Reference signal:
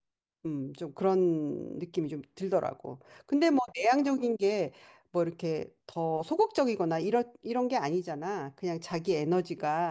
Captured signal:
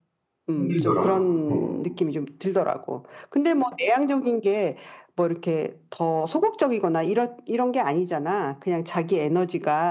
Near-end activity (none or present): present